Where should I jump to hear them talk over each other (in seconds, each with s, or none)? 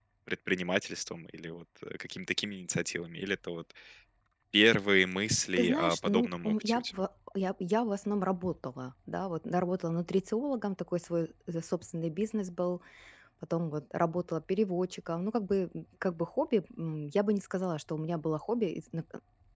5.6 s